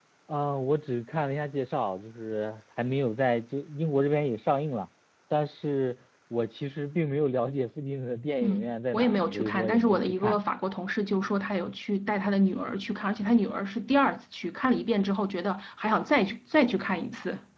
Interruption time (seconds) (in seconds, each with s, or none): 8.4 s